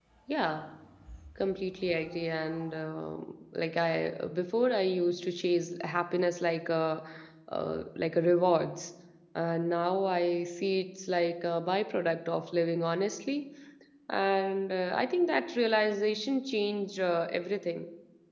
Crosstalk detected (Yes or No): No